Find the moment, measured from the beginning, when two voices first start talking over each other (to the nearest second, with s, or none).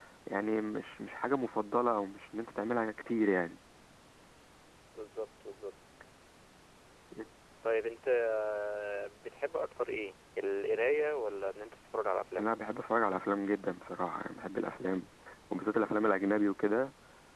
none